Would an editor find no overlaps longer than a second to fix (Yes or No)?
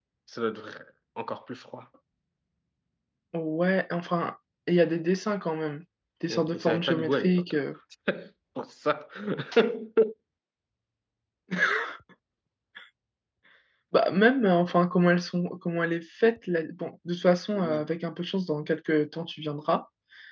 No